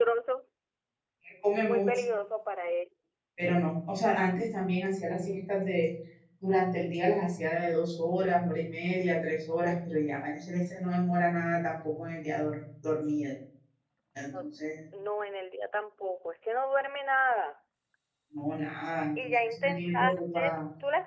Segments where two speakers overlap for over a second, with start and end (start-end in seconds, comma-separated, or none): 19.2-20.6